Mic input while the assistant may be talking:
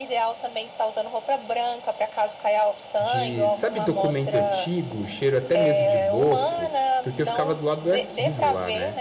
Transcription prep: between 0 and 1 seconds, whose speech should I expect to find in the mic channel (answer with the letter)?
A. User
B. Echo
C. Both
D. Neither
B